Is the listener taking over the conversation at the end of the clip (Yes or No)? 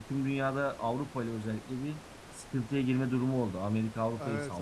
Yes